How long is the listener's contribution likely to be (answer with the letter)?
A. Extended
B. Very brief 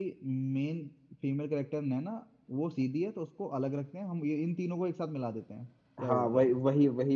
A